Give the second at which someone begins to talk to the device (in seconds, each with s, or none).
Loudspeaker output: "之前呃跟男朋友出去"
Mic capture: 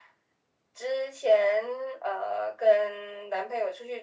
none